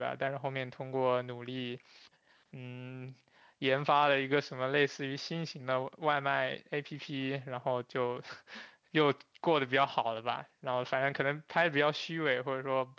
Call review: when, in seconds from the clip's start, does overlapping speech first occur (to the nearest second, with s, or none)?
none